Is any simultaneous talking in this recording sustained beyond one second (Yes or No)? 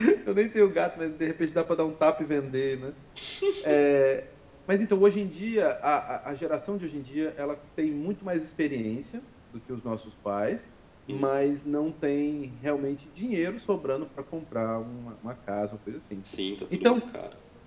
No